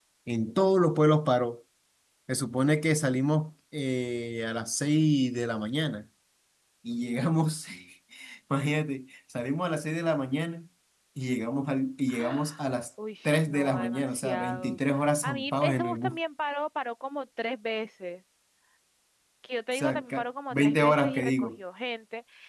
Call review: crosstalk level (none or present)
present